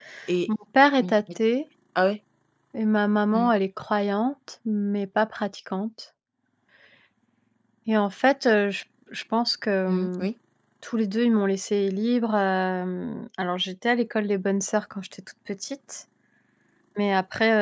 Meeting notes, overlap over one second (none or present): none